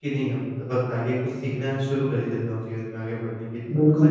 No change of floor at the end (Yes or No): No